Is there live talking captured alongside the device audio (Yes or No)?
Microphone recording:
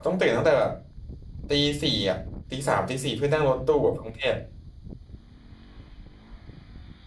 Yes